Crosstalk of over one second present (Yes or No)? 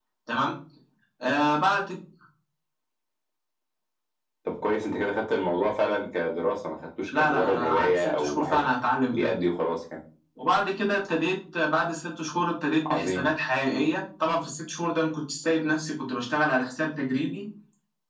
Yes